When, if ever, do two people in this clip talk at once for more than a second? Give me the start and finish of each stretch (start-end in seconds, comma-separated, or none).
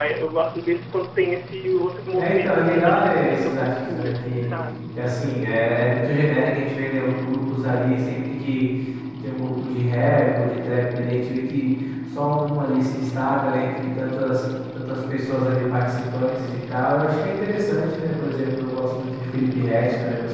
2.2-4.4